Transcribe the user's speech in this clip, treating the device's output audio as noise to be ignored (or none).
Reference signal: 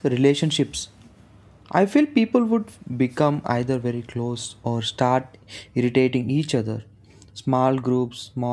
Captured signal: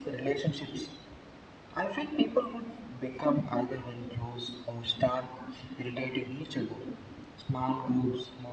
none